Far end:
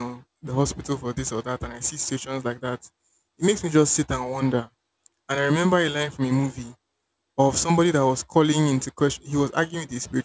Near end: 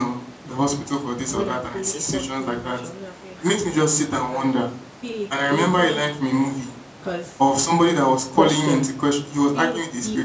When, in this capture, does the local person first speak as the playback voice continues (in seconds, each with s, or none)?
1.3 s